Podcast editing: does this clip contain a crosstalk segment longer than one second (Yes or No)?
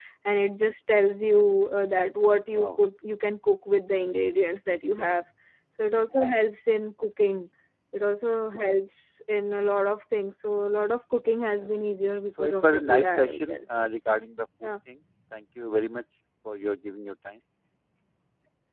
Yes